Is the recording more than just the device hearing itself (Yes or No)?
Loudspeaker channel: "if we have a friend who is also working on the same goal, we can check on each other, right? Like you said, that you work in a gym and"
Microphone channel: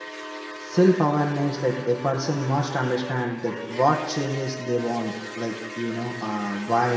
Yes